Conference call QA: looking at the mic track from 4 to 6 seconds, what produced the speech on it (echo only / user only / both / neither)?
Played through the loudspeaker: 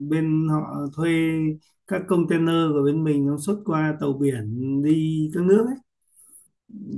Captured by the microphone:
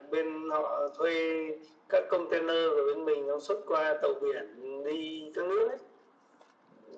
echo only